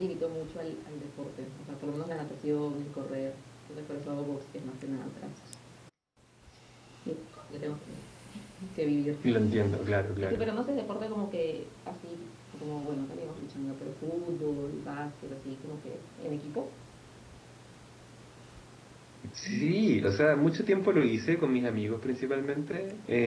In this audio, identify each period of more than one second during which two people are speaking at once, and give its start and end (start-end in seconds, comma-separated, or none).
none